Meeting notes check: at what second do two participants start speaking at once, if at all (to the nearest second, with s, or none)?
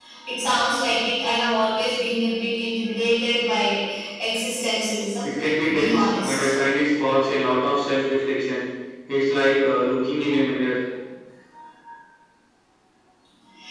5 s